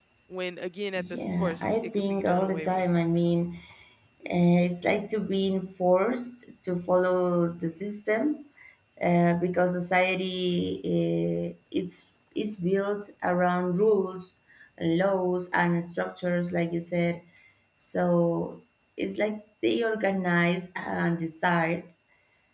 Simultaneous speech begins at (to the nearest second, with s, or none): 1 s